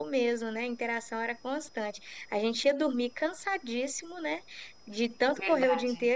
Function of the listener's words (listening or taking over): listening